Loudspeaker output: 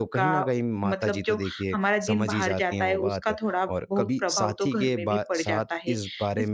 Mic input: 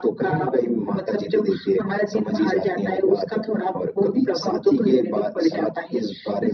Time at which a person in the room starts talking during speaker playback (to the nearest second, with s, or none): none